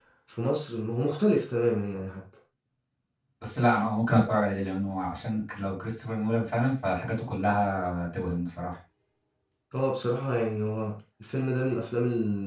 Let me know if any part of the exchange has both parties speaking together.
No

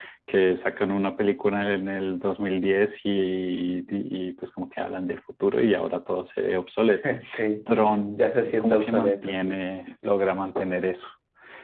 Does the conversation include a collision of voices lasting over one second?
Yes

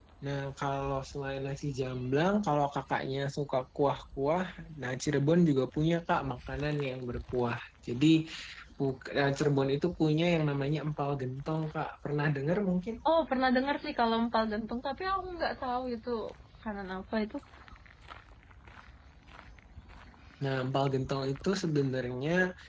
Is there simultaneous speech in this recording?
No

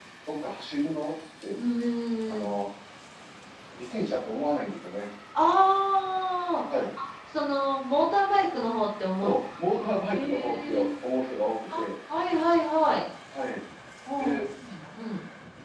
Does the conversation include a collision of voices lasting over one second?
Yes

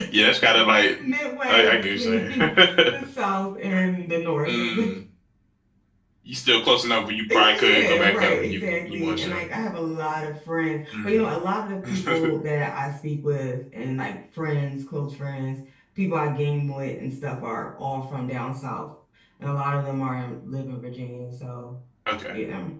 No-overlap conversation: No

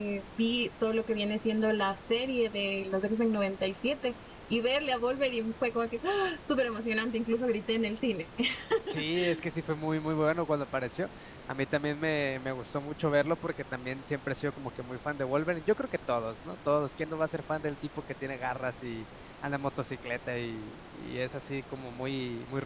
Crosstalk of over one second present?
No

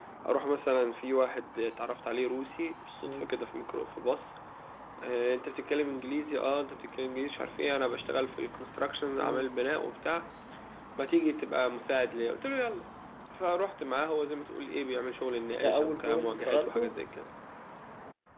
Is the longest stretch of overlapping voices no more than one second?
No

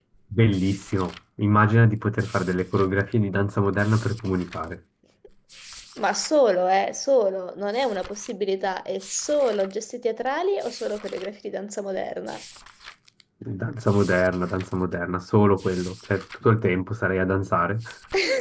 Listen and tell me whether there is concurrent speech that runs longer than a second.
No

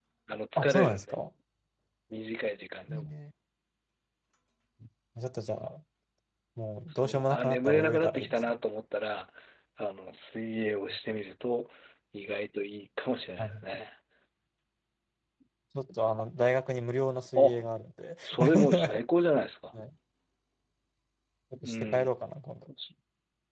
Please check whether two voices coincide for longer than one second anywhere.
Yes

